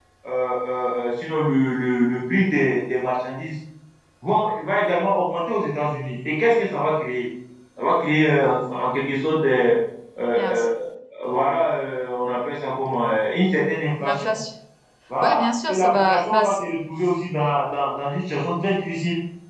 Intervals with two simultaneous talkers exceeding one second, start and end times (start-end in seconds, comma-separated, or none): 15.2-16.6